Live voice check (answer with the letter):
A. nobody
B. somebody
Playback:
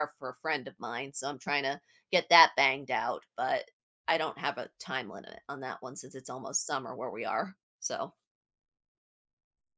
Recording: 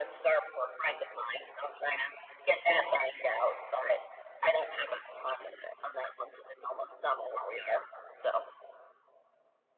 A